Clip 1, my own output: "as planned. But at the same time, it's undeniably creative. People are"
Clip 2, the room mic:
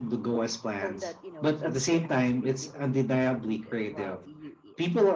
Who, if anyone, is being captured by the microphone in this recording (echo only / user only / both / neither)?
both